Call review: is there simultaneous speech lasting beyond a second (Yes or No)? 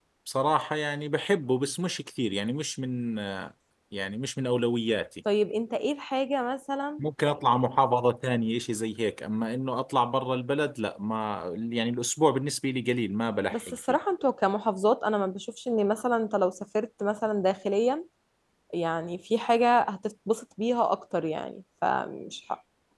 No